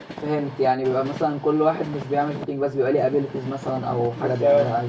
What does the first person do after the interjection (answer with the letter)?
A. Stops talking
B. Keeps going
A